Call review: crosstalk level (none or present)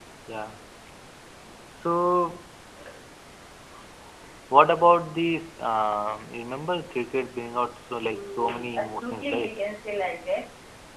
present